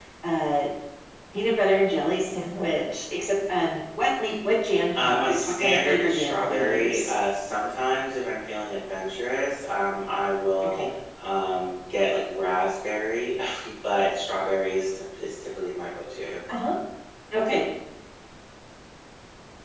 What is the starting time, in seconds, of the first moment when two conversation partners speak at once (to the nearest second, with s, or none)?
5 s